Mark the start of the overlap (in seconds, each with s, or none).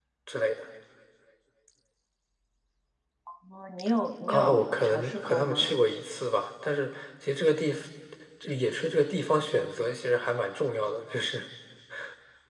4.3 s